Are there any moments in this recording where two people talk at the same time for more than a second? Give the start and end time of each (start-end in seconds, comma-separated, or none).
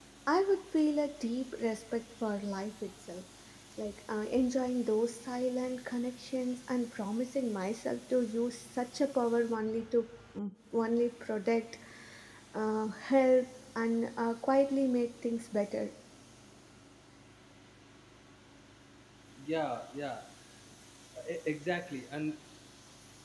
none